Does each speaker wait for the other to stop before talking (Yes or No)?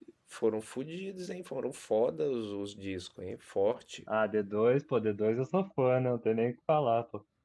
Yes